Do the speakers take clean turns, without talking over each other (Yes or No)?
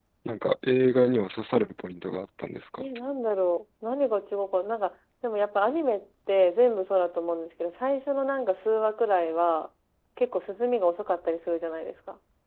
Yes